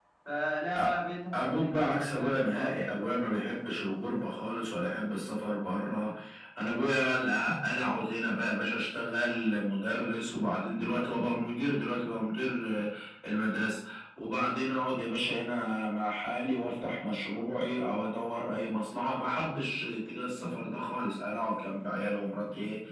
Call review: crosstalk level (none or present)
present